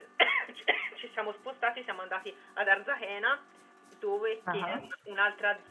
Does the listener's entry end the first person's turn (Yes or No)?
No